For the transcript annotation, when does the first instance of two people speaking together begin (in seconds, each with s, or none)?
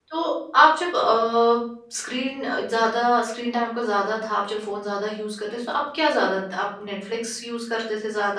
none